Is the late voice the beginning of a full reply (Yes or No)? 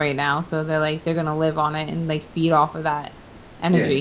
Yes